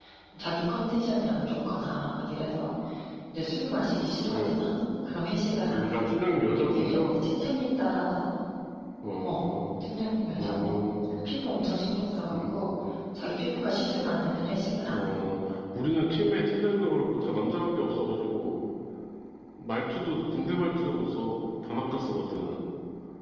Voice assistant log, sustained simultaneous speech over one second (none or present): none